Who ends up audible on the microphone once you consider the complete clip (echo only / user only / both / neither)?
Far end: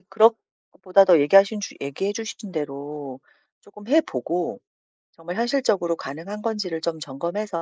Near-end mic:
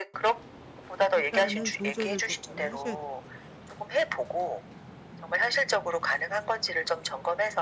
both